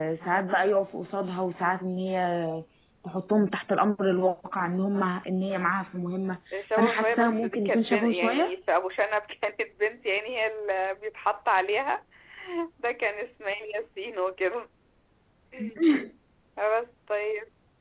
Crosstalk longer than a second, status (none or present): present